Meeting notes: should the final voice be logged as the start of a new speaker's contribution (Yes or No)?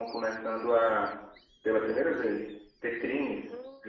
No